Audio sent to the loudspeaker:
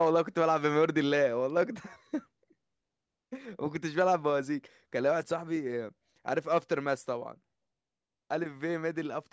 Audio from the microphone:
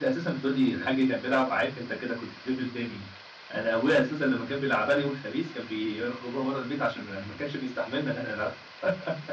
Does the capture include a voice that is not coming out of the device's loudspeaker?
Yes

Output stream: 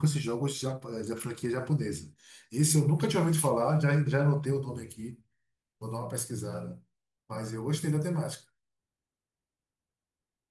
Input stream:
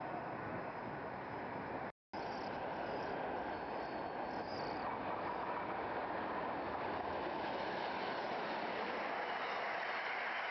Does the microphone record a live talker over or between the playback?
No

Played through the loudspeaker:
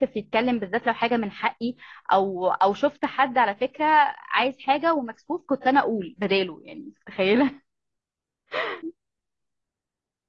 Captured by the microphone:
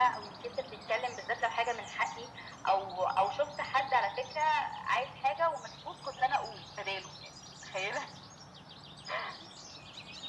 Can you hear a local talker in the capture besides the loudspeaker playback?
No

